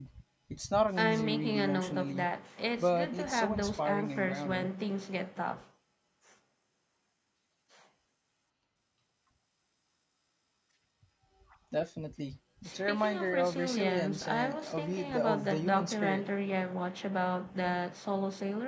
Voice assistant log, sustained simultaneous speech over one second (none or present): present